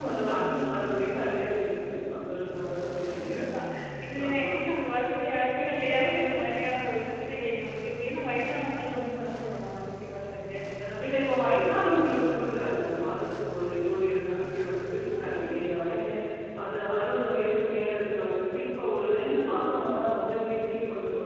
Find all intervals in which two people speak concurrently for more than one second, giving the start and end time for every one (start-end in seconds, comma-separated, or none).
none